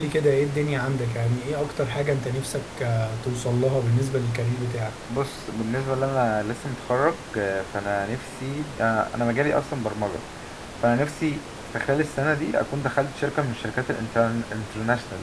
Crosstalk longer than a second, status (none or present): none